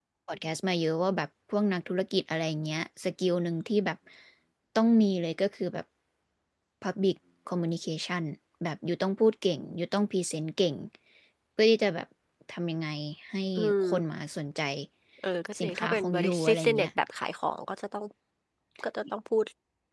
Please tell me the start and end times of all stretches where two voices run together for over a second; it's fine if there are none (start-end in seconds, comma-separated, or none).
15.6-16.9